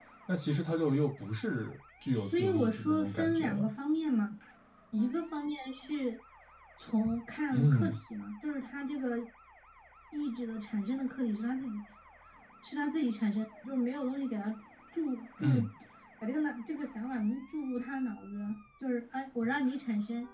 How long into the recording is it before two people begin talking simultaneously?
2.1 s

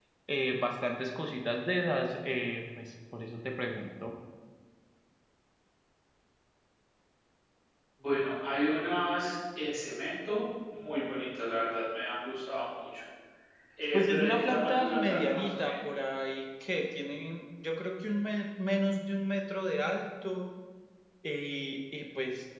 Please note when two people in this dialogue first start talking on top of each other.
13.9 s

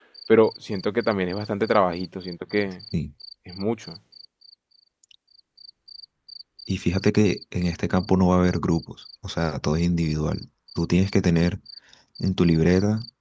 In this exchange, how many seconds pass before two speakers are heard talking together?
none

